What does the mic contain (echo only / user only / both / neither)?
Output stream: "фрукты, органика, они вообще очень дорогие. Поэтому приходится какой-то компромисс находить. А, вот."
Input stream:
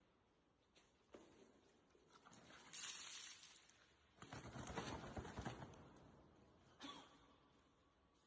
neither